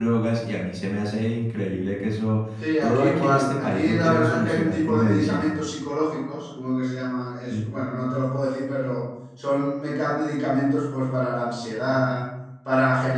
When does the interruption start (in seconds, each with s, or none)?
2.8 s